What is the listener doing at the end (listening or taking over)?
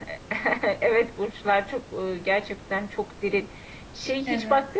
listening